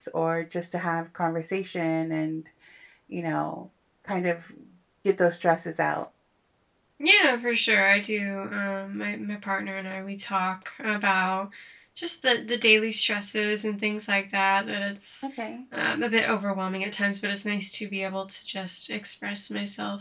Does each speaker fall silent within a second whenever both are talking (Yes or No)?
Yes